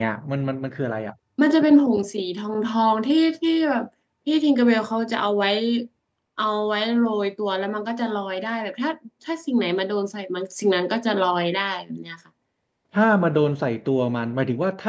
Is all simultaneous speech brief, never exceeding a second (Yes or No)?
Yes